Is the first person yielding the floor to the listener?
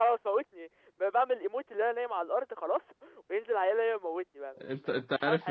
Yes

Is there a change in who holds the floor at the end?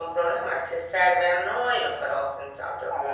No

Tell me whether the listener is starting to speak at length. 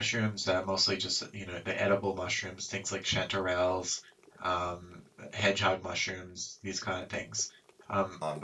No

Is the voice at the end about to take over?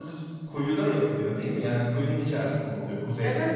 Yes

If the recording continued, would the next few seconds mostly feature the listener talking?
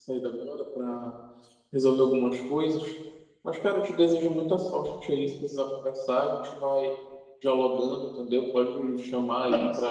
No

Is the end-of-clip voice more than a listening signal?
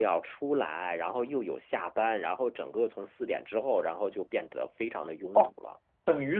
Yes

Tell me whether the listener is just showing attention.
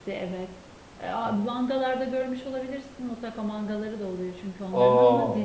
Yes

